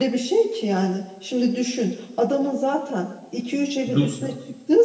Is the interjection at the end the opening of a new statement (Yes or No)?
No